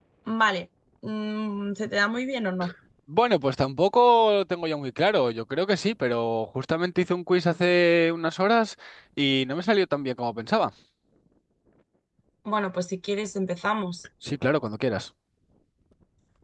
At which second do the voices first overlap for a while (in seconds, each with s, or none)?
none